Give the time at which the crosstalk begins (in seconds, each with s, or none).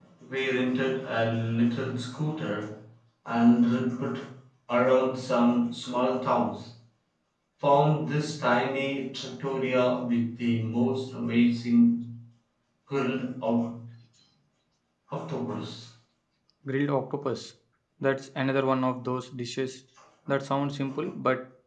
none